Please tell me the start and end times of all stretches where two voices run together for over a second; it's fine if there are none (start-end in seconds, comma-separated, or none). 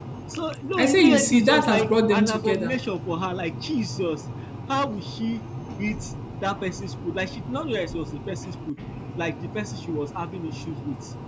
0.8-2.8